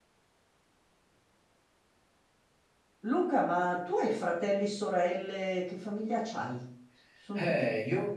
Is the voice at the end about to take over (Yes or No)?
Yes